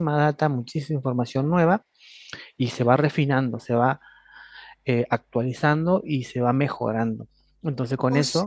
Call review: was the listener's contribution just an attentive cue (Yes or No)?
Yes